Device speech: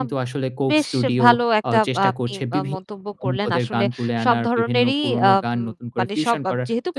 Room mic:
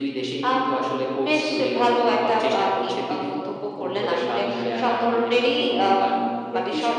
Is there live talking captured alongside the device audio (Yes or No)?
No